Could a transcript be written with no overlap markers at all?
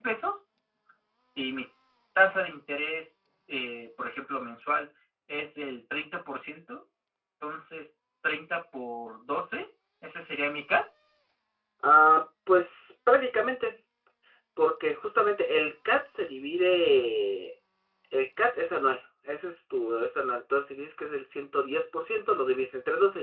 Yes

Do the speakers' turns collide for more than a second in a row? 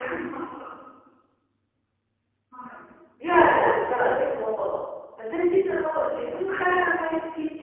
No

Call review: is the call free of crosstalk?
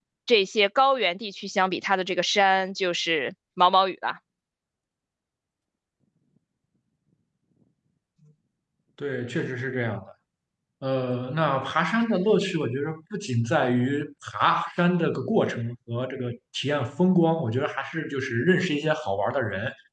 Yes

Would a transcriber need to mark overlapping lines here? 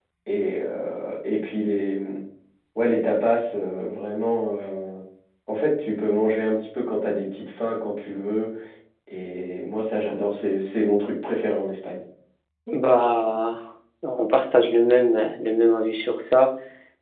No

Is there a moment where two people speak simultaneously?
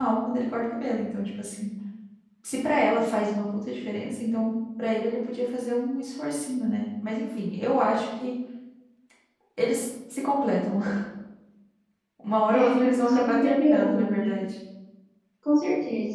Yes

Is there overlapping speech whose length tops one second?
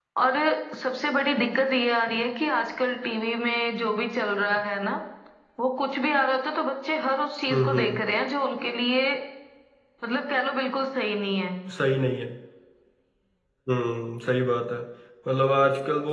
No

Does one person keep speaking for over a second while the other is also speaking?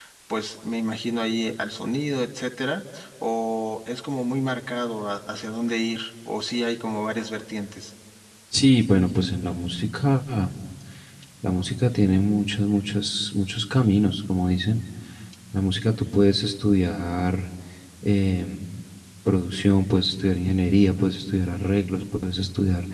No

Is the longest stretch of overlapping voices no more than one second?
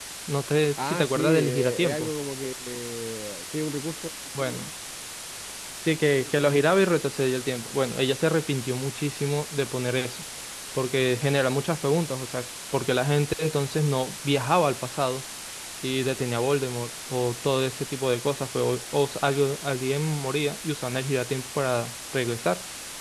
No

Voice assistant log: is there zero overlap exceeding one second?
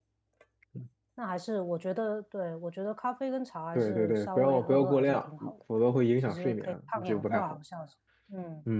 No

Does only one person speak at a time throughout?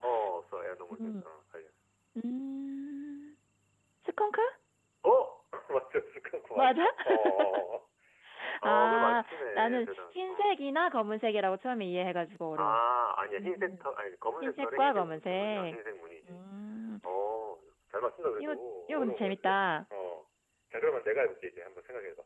No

